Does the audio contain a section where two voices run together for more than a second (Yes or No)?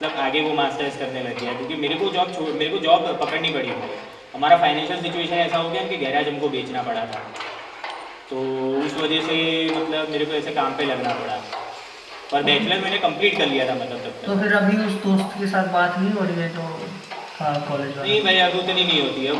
No